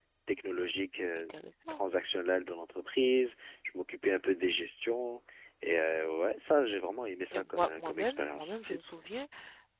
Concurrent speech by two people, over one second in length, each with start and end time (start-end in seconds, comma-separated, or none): 7.3-8.8